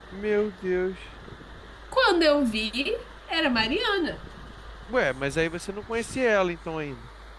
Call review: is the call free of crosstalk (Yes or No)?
Yes